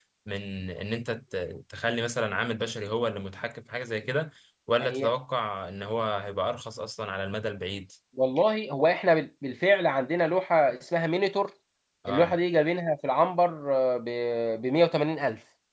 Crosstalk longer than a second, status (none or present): none